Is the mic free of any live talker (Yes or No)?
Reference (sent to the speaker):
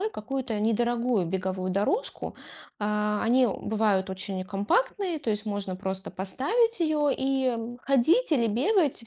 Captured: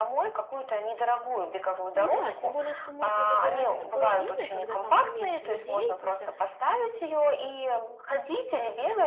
No